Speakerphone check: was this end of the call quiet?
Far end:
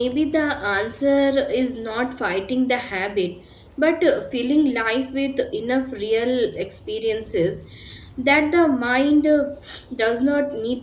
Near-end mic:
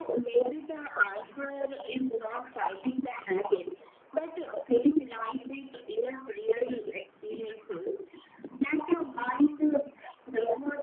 Yes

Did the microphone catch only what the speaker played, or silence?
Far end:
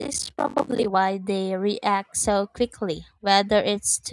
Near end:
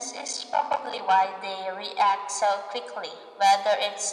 Yes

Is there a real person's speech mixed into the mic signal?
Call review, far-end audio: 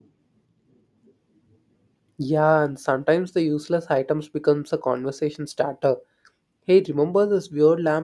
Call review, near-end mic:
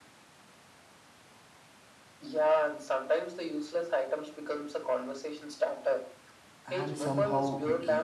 Yes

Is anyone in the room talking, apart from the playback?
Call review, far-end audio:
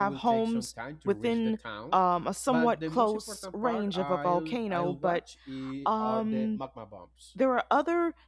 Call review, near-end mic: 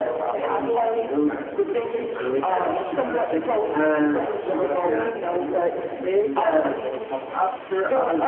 Yes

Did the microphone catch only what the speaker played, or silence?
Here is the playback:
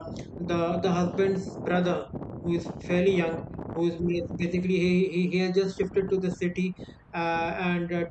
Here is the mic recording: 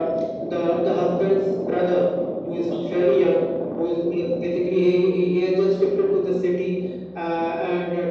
No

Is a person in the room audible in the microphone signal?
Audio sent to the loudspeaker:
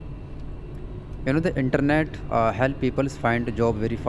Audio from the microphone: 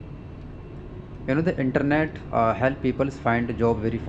No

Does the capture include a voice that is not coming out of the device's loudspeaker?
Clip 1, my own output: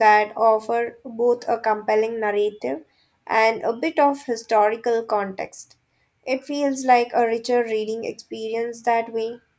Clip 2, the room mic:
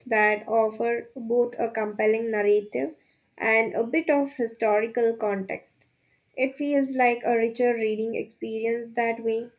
No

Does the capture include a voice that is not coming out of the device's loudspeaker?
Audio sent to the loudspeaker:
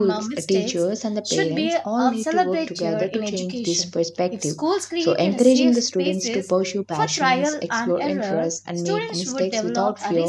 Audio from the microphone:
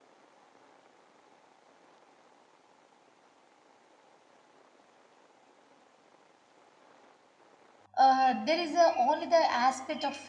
Yes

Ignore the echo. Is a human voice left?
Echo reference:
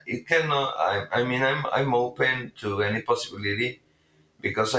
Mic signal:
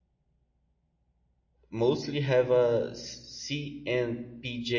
Yes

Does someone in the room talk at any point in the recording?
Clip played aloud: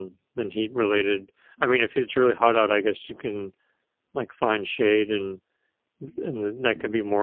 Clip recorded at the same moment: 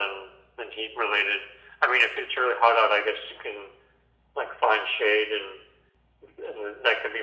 No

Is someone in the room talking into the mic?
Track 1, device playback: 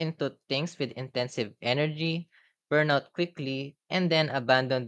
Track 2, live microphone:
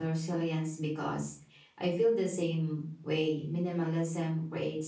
Yes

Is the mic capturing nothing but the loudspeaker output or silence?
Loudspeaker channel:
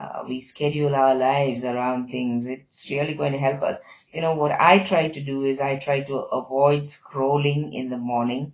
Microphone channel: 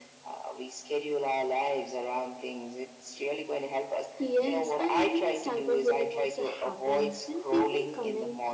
No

